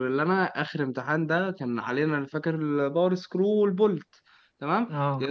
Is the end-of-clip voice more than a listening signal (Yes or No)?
No